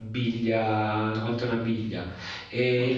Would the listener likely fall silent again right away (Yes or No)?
Yes